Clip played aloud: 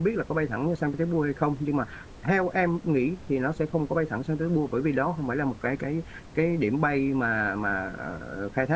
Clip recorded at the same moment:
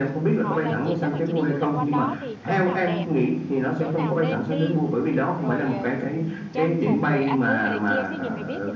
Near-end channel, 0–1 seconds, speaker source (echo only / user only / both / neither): both